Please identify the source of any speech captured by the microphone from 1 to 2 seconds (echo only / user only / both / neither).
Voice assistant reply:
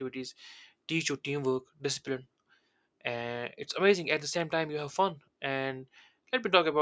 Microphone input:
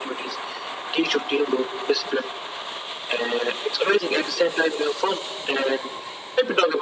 echo only